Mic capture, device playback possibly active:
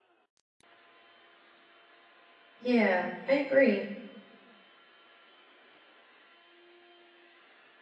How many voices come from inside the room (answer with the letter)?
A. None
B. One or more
B